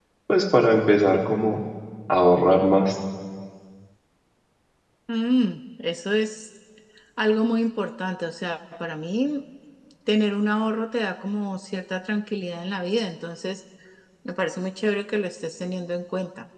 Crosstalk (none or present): none